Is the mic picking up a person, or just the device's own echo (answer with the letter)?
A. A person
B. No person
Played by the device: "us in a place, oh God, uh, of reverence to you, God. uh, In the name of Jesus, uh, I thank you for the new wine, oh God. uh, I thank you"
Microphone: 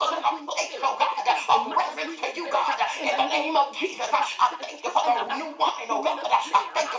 A